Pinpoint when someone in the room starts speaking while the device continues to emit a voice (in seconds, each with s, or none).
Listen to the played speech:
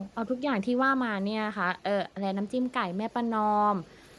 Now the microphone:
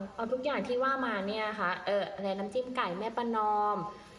none